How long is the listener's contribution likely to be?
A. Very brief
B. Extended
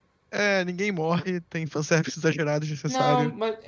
B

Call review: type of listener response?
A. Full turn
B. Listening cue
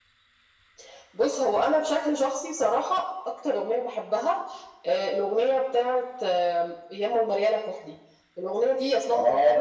B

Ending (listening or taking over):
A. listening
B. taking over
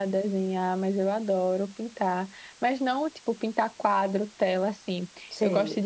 A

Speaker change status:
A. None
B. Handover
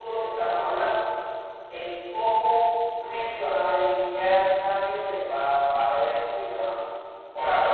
B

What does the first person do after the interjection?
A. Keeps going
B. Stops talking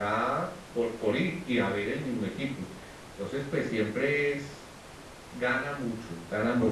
A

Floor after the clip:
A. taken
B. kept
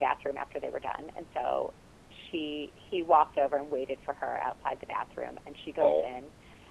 B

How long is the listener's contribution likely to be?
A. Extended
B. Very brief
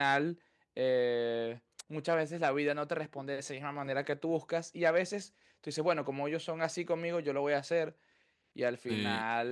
A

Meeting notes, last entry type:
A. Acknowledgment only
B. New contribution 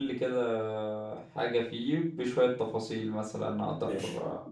B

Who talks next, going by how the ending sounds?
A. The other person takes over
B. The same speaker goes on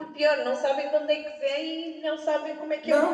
A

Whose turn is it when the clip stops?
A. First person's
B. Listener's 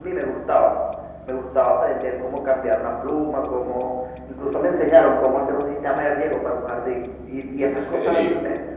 A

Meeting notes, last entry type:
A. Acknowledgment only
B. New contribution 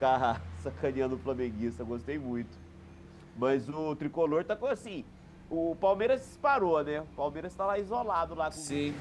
B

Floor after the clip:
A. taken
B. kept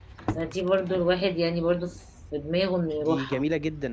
A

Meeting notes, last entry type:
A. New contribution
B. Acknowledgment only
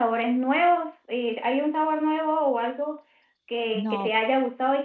B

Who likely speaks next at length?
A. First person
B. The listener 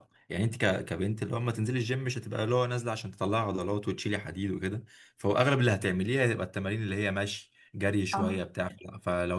A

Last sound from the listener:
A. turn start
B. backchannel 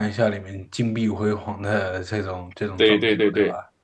A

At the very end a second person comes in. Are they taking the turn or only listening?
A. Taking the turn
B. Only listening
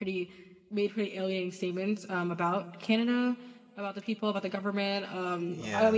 B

